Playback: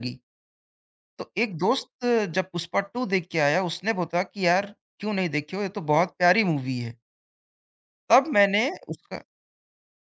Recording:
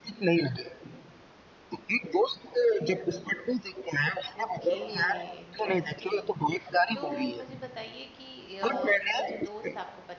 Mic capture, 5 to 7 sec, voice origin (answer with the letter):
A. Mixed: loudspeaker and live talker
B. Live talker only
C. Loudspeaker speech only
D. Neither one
A